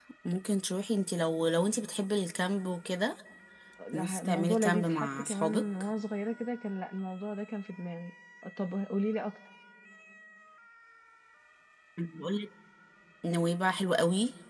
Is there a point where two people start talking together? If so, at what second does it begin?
3.9 s

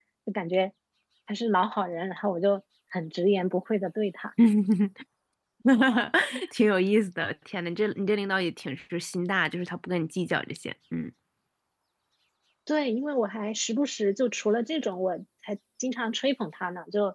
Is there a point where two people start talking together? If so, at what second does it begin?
none

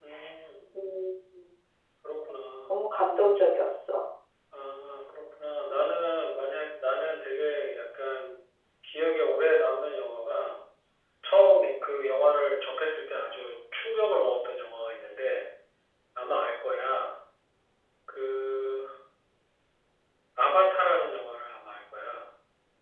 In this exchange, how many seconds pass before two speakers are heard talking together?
none

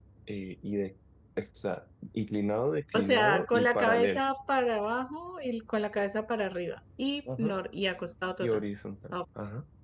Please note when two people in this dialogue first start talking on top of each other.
2.9 s

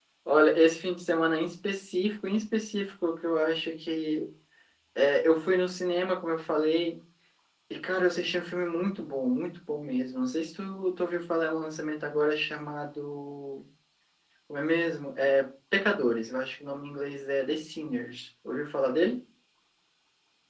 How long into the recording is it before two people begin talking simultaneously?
none

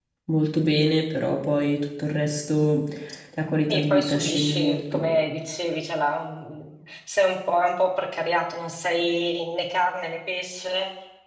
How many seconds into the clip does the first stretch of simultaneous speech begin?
3.7 s

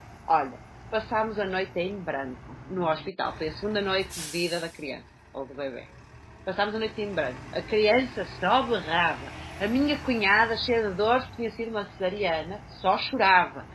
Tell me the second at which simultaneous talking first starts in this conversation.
none

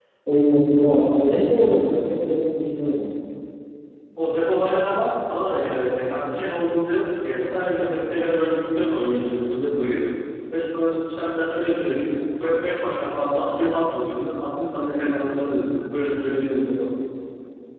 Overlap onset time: none

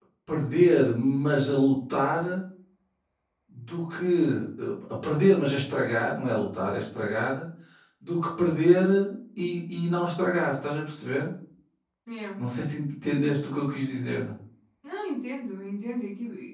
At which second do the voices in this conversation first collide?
none

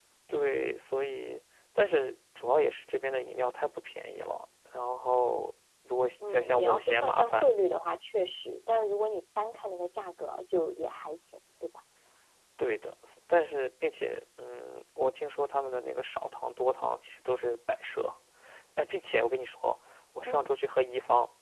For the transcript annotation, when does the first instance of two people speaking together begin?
6.2 s

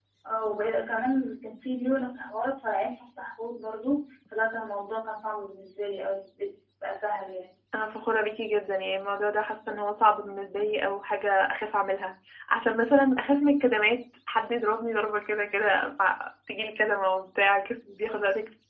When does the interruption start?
none

